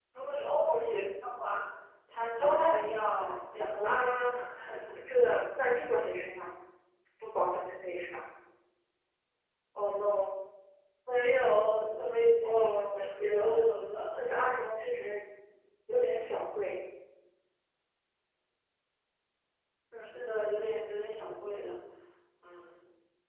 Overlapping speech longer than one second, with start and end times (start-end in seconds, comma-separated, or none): 12.4-13.7